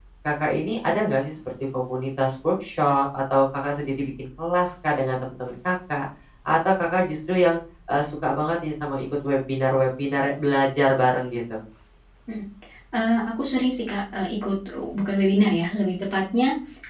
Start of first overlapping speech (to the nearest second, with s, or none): none